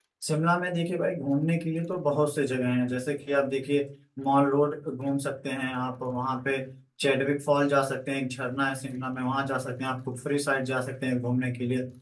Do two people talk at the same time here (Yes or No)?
No